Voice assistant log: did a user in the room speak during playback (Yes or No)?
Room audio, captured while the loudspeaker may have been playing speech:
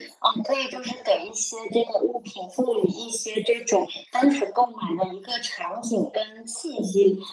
No